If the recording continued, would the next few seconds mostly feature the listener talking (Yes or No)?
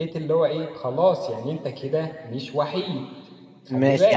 Yes